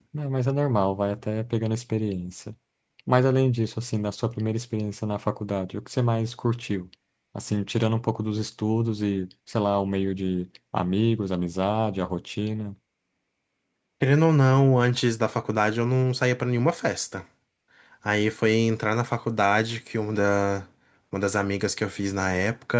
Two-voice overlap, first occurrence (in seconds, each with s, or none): none